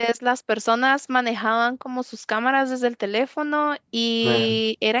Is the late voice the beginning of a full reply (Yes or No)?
No